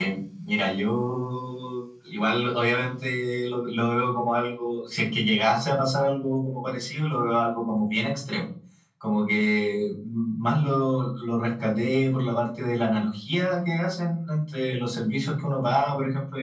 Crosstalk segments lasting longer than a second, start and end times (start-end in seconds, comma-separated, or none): none